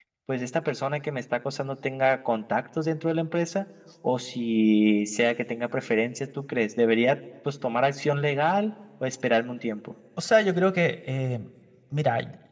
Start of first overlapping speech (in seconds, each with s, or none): none